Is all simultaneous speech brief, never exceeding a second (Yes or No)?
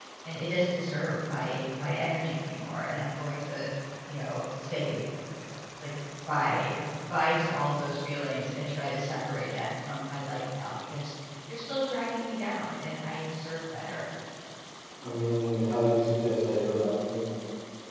Yes